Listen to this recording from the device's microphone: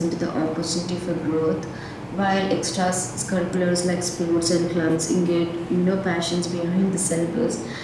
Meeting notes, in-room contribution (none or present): none